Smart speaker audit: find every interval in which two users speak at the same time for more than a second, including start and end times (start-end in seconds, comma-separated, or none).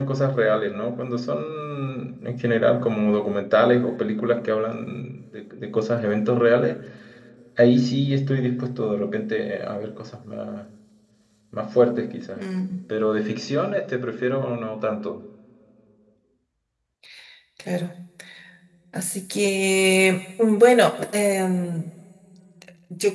none